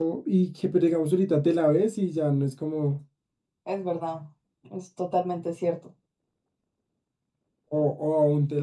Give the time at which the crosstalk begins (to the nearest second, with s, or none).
none